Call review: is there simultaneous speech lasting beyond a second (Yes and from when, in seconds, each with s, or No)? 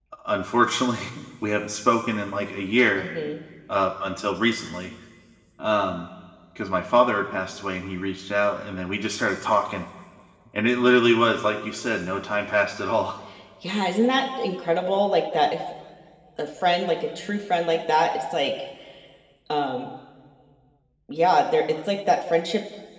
No